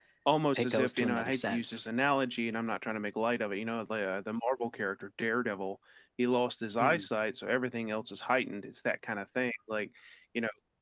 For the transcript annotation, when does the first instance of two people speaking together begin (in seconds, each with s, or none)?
0.6 s